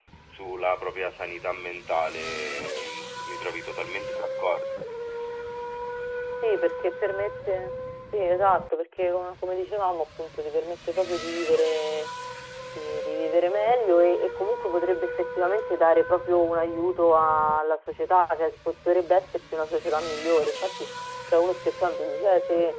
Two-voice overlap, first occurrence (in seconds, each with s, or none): none